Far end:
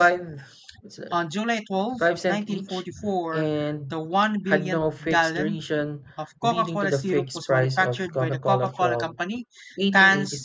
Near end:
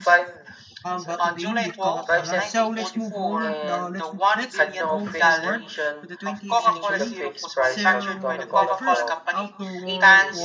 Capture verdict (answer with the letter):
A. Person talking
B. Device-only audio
A